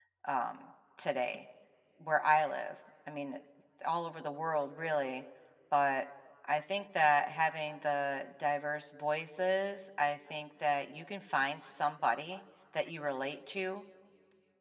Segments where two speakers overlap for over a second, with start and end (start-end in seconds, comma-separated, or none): none